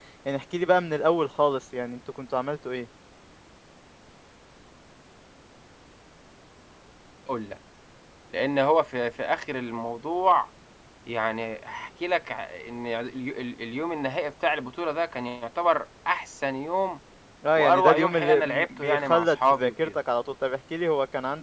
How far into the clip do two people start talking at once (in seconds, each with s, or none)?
17.6 s